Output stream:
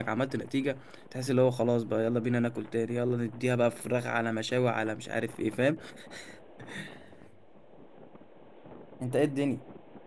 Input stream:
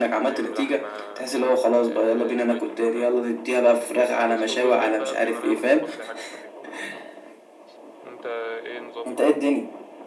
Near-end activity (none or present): present